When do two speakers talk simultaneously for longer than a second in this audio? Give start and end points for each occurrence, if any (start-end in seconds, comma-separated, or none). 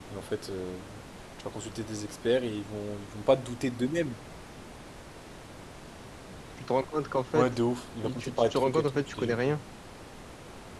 8.0-9.4